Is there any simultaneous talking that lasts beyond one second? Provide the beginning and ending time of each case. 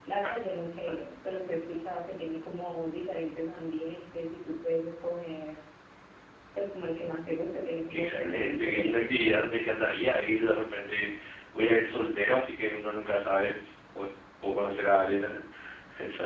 7.9-9.7

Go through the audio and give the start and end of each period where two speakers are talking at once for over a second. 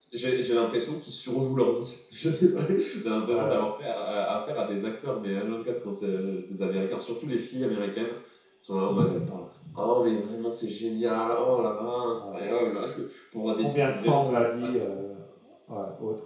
13.5-14.8

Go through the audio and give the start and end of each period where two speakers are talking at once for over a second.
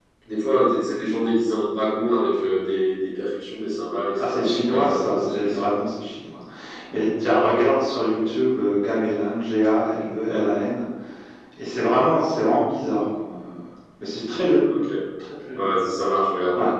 4.2-5.8

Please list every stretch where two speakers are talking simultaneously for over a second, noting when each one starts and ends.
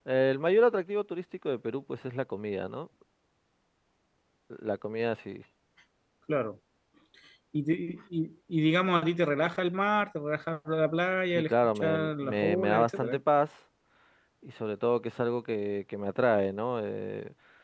11.3-13.2

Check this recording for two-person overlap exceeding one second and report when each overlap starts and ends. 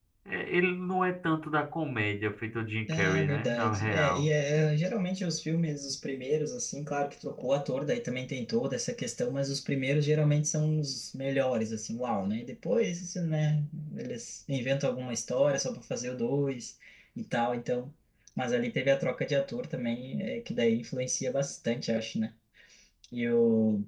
2.9-4.3

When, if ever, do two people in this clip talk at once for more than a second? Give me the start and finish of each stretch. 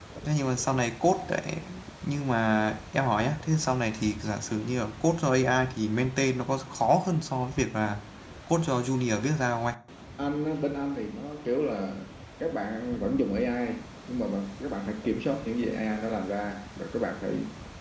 none

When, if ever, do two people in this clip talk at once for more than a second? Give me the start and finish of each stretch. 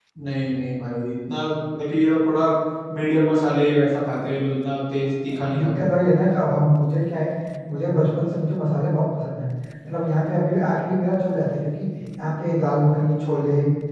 none

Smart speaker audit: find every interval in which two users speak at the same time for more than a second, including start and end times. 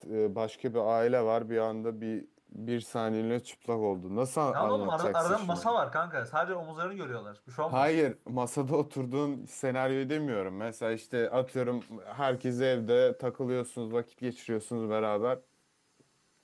4.5-5.7

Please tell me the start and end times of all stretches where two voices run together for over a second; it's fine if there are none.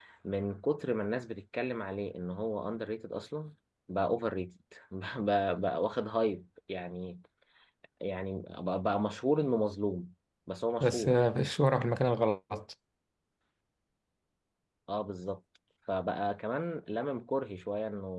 none

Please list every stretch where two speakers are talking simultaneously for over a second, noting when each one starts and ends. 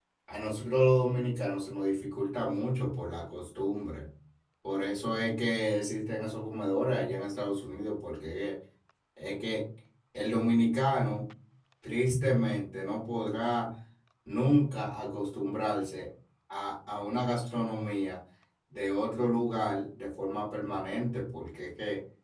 none

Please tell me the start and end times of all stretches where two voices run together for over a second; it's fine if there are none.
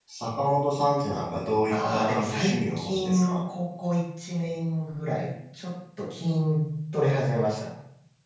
1.7-3.4

